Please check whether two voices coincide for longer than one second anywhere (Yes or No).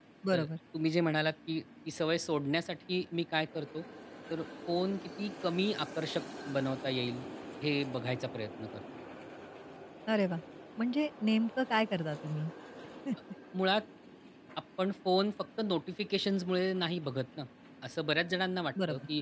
No